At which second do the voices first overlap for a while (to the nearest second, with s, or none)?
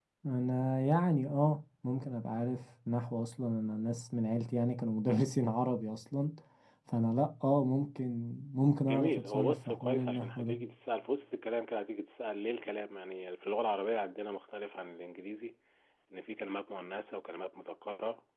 9 s